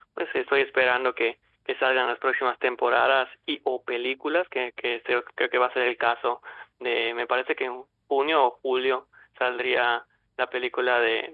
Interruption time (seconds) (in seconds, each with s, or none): none